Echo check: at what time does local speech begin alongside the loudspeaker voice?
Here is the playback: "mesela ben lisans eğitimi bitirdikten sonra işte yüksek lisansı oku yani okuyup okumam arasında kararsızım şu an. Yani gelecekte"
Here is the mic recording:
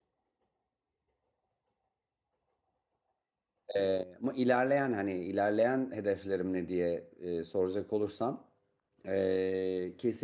3.8 s

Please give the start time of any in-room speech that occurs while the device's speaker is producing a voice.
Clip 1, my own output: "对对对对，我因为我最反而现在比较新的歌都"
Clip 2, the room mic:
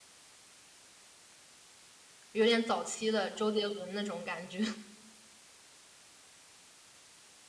2.3 s

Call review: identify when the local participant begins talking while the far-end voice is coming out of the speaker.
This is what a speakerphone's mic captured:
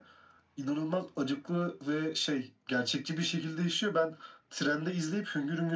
none

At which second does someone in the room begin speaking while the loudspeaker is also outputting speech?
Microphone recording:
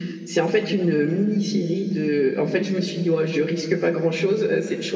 none

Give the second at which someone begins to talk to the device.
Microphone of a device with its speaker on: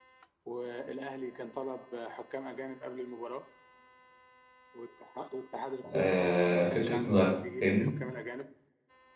5.9 s

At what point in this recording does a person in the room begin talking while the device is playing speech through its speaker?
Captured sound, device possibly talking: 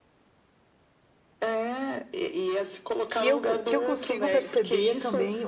3.1 s

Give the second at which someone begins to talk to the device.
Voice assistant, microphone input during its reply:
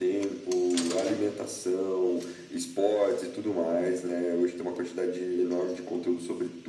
none

